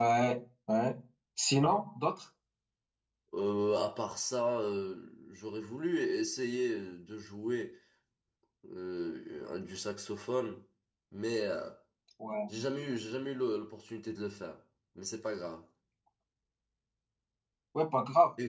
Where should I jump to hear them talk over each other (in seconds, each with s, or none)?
none